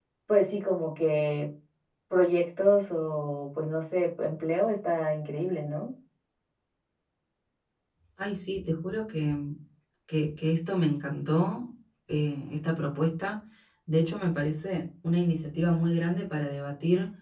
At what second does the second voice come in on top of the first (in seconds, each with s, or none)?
none